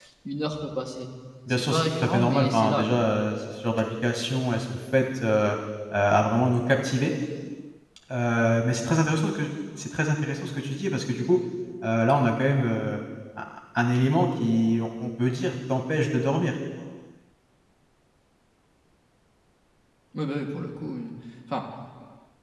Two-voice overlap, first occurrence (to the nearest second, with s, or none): 1 s